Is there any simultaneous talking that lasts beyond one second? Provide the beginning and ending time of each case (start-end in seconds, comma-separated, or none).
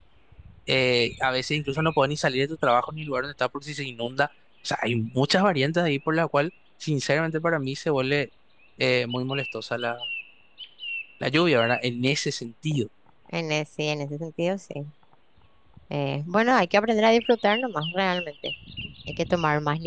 none